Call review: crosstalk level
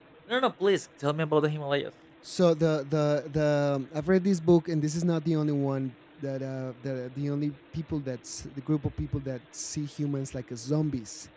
none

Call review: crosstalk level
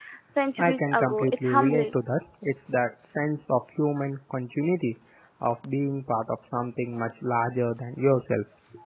present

